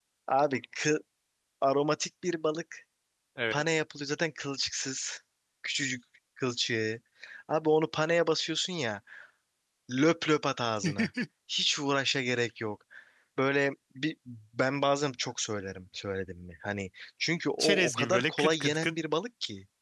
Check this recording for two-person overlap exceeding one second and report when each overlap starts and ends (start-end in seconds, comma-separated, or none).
17.6-18.9